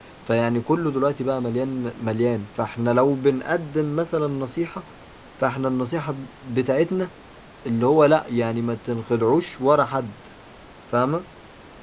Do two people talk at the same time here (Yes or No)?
No